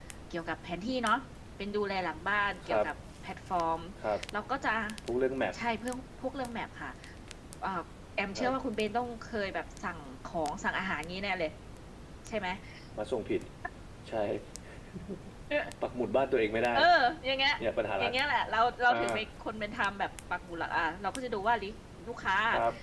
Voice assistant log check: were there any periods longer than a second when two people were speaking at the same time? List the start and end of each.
none

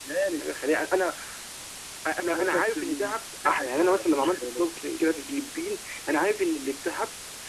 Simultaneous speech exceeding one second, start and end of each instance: 2.3-4.8

